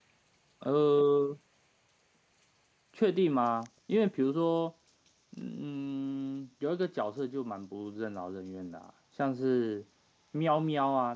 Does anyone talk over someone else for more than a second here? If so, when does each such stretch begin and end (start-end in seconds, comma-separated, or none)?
none